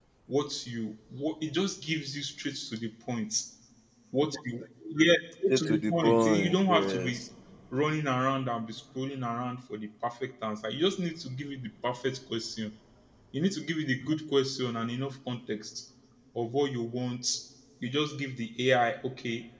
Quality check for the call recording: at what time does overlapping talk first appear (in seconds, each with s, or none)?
5.5 s